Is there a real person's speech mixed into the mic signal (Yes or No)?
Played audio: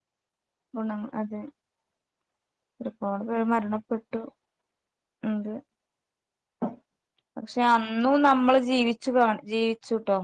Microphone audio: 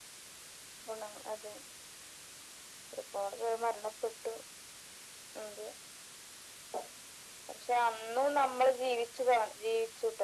No